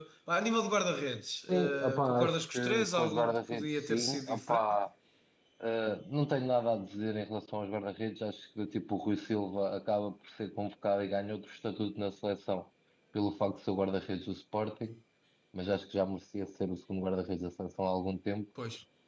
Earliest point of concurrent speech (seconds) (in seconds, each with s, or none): 1.5 s